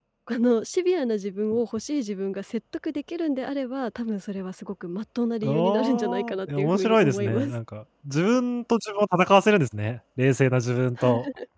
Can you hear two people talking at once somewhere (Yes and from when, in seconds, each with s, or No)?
Yes, from 5.4 s